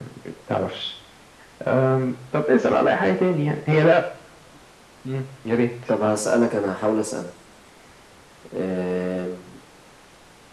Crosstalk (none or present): none